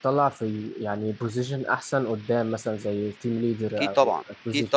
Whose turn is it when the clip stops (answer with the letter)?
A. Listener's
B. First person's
A